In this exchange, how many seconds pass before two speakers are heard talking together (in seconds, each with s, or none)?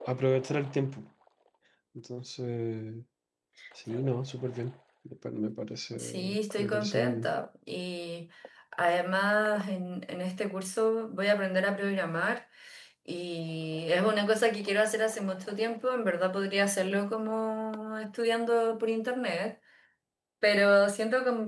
5.9 s